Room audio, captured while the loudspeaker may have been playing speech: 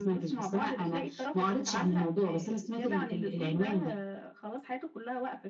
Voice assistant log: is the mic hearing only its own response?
Yes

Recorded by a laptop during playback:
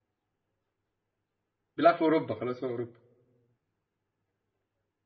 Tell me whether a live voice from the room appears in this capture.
Yes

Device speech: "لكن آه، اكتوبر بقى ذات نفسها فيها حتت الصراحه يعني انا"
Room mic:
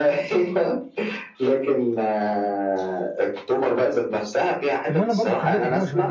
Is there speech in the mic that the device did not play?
Yes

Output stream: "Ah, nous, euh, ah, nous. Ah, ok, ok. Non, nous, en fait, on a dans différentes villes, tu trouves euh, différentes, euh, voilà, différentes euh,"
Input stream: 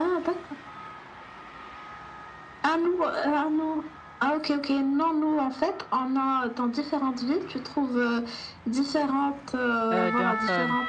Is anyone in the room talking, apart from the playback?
Yes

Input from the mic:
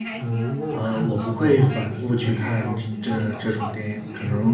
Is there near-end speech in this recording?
Yes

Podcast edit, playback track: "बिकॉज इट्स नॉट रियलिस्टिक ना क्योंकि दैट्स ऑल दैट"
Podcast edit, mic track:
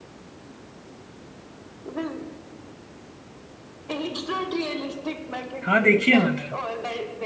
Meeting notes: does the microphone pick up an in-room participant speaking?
Yes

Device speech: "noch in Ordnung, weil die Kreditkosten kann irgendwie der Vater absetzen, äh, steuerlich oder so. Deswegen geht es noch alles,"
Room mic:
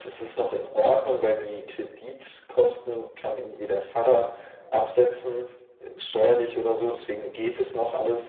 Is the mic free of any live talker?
Yes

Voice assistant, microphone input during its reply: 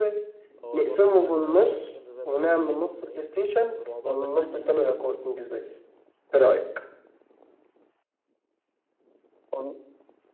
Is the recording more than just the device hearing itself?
Yes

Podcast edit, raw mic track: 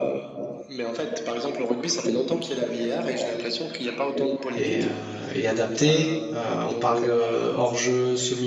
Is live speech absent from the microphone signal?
No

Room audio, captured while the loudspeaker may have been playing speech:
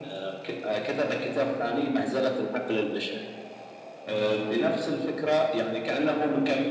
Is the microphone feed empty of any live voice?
Yes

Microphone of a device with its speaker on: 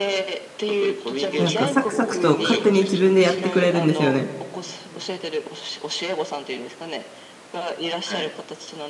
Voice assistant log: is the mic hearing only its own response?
No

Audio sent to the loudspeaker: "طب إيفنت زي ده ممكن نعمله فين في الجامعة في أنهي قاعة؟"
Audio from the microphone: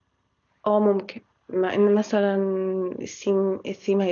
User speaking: Yes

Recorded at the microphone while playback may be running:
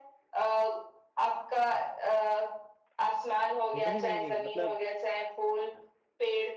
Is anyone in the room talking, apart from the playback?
Yes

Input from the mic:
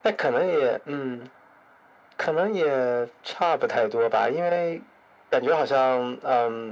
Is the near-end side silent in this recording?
Yes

